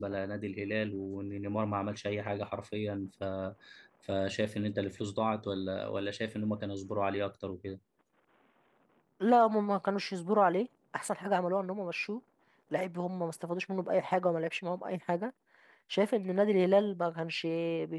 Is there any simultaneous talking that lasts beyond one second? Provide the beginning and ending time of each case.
none

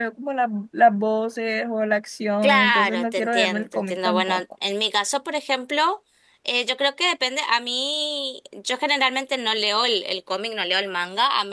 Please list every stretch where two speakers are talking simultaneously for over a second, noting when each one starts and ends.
2.4-4.4

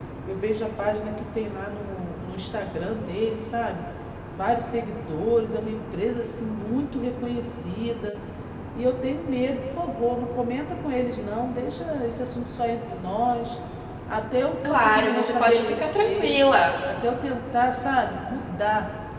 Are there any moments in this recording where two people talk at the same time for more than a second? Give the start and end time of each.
14.6-16.4

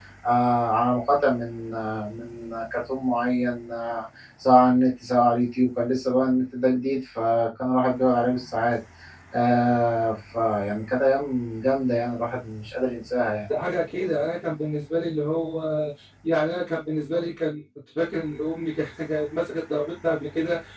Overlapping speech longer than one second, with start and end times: none

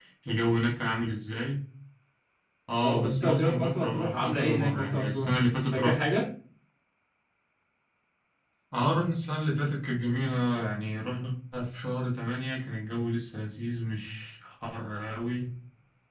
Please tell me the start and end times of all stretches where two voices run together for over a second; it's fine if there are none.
2.8-5.3

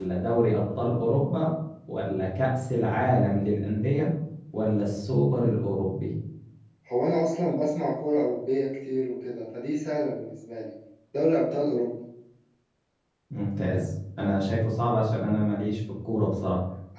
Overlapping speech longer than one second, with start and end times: none

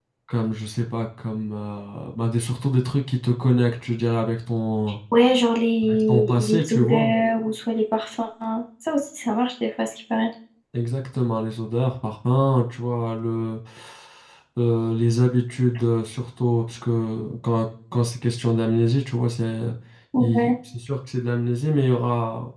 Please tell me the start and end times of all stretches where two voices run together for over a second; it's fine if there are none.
5.9-7.1

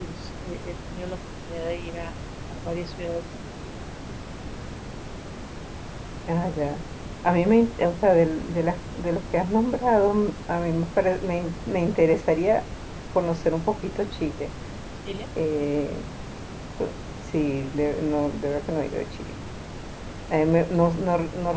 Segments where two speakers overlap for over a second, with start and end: none

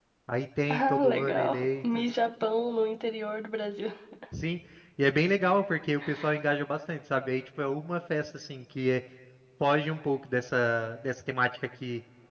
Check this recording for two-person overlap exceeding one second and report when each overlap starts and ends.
0.7-2.0

